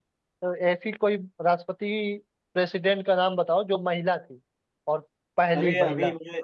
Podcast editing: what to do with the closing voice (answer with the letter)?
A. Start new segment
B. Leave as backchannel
A